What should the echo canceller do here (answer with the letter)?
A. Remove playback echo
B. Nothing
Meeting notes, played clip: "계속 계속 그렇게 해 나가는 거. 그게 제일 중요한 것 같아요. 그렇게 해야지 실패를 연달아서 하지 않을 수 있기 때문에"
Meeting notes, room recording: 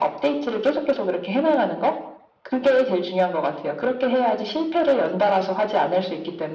A